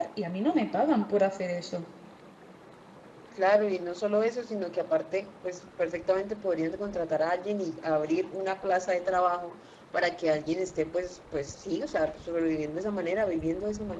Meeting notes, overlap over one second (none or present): none